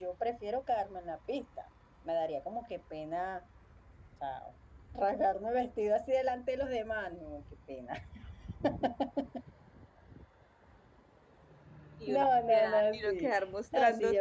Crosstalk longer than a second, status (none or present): present